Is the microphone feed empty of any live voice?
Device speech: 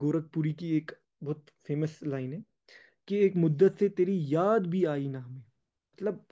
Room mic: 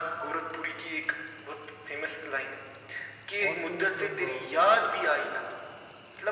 No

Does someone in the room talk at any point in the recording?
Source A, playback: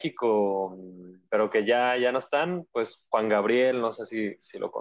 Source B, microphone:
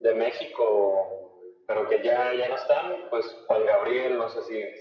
No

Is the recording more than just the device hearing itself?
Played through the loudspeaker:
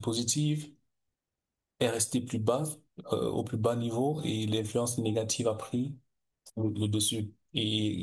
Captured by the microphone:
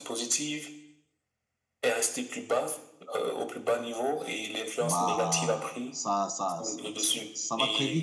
Yes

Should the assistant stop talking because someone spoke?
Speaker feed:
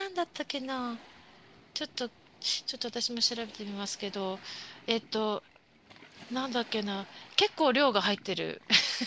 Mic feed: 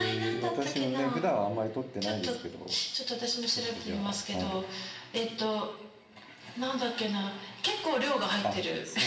Yes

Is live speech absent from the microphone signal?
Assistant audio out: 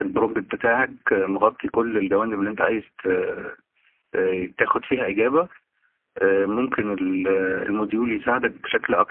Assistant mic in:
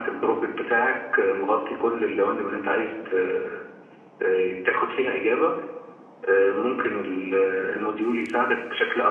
Yes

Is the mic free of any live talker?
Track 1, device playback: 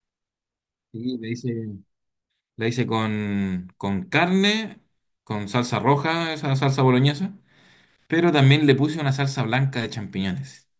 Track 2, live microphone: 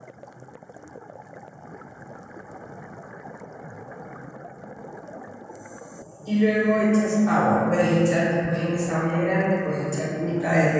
No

